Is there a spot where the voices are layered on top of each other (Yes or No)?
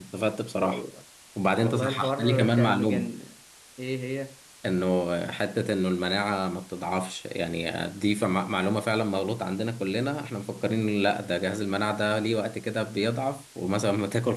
Yes